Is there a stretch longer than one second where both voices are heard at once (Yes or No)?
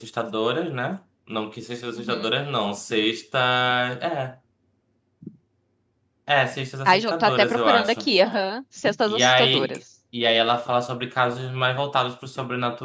Yes